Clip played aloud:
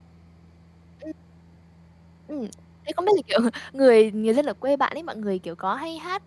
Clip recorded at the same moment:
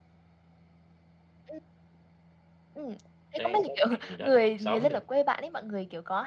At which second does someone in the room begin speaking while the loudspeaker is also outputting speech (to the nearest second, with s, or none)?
3 s